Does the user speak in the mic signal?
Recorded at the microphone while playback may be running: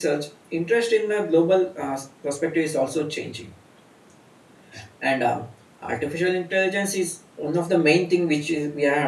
Yes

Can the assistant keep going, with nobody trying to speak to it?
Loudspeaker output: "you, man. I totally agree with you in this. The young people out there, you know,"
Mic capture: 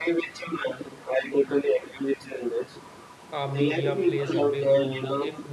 No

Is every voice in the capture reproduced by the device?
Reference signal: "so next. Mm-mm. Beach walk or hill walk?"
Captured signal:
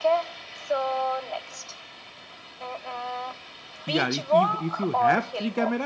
No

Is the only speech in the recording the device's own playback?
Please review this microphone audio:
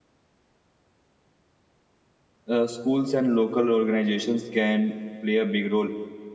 No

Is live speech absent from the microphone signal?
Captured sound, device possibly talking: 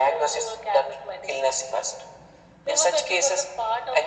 Yes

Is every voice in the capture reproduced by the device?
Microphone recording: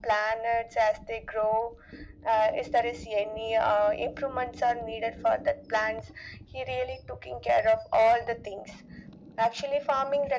Yes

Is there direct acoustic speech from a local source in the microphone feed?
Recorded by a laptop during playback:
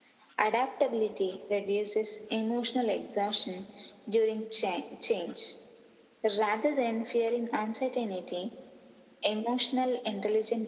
No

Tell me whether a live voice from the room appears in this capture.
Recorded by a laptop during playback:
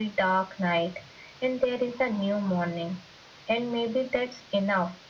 No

